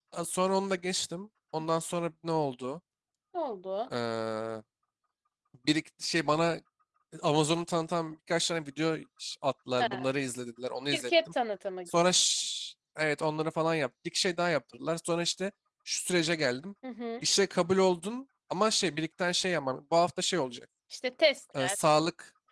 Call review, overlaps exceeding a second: none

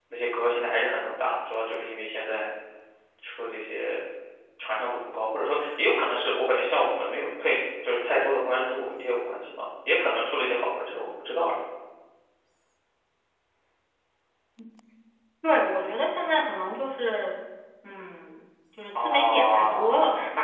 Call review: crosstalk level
present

